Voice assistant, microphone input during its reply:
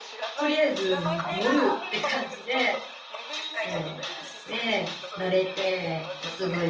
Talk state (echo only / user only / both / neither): both